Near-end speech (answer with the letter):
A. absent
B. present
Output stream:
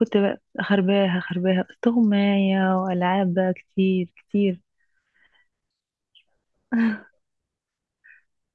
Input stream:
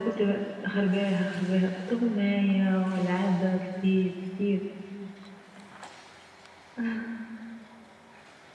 A